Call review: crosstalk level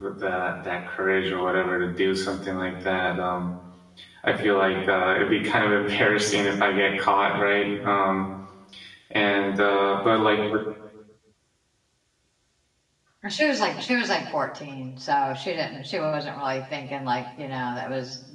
none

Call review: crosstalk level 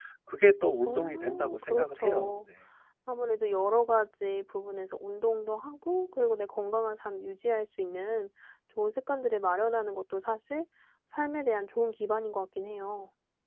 present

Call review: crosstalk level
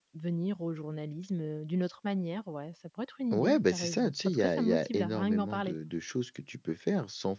present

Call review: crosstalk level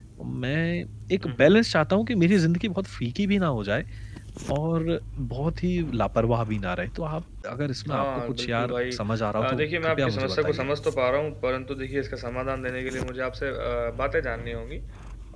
present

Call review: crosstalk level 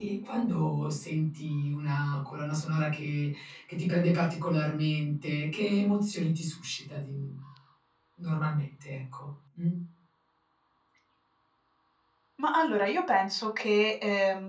none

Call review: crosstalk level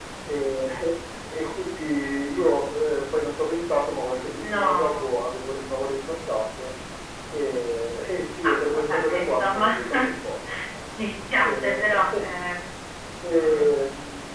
present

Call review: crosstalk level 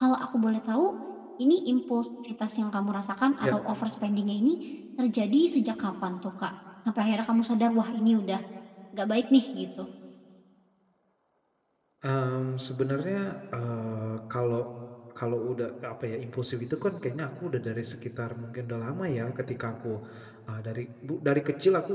none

